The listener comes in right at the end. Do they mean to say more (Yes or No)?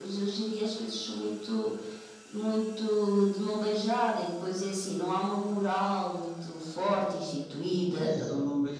Yes